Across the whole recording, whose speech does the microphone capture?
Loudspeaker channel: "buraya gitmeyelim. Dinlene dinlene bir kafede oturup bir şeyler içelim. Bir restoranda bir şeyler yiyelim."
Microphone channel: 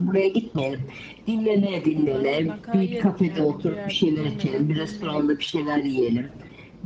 both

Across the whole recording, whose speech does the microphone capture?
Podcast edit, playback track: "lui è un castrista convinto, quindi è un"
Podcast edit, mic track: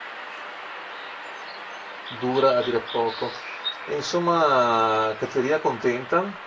user only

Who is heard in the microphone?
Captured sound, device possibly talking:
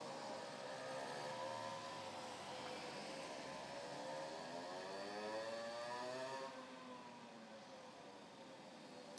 neither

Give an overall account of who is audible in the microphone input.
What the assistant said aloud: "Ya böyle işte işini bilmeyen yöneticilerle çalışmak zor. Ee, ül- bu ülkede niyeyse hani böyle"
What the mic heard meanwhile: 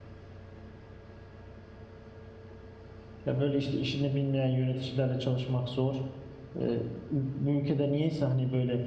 echo only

